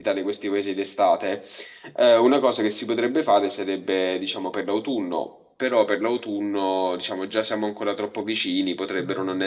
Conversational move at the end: listening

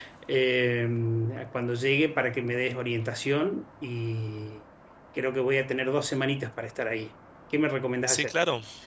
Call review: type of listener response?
taking over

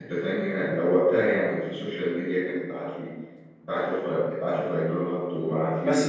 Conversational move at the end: taking over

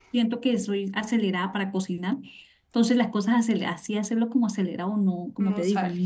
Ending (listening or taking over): listening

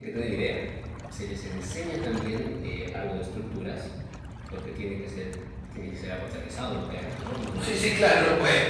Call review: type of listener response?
taking over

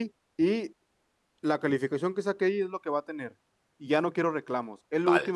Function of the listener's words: listening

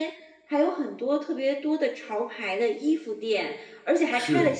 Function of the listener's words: listening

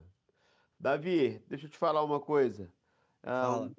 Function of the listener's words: listening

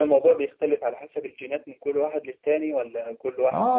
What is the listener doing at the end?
taking over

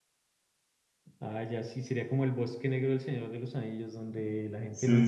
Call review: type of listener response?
taking over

